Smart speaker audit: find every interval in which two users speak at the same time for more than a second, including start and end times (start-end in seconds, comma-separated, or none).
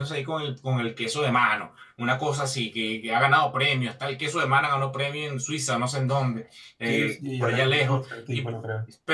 6.9-8.5